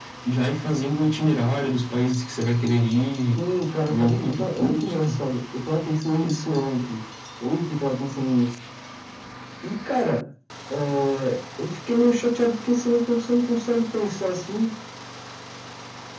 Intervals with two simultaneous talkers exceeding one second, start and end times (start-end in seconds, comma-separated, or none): 3.9-5.1